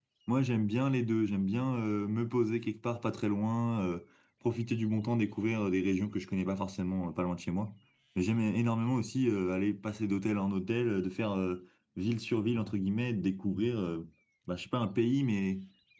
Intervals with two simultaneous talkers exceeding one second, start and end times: none

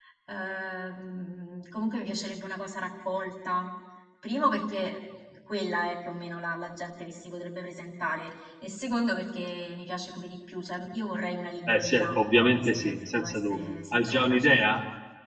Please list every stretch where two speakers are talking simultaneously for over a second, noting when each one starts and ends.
11.7-14.6

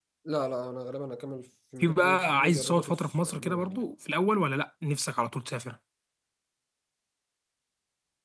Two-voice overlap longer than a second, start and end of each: 1.8-3.8

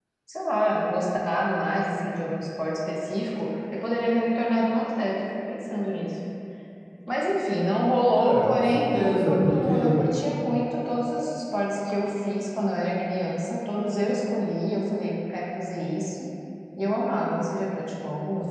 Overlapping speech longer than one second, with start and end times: 8.1-10.0

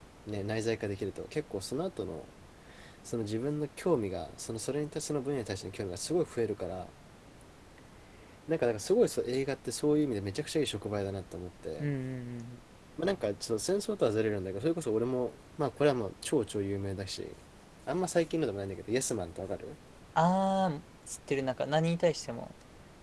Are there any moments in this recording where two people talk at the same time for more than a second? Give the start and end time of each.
none

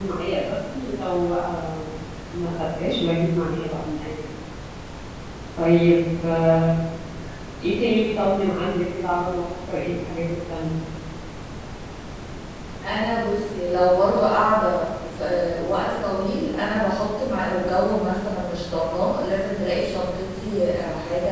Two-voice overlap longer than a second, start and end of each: none

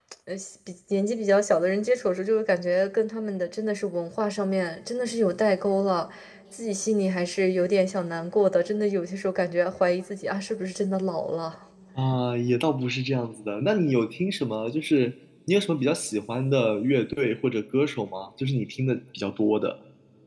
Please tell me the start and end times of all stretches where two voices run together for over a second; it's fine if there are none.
none

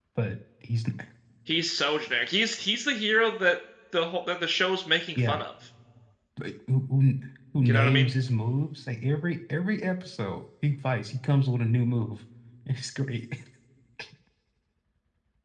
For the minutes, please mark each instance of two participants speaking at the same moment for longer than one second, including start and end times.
none

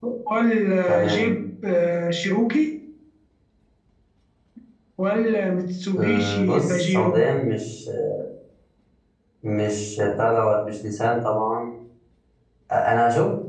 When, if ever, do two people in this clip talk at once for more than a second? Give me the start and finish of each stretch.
6.0-7.2

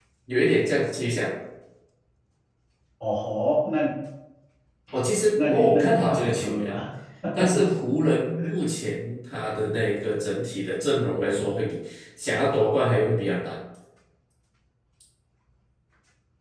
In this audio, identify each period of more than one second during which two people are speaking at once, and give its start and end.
5.3-6.7

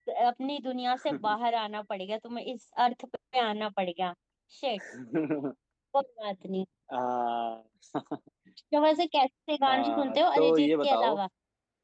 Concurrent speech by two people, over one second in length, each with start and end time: 9.7-11.2

